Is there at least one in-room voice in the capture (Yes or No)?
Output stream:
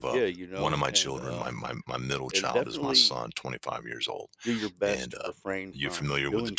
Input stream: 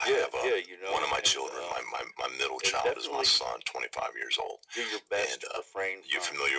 No